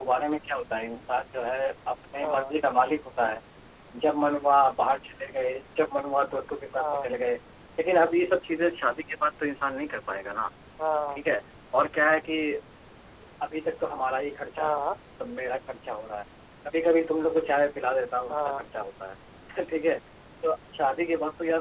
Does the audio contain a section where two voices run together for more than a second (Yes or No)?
No